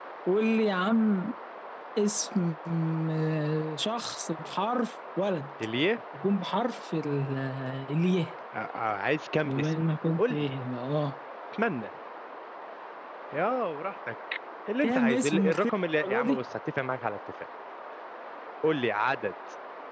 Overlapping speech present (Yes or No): Yes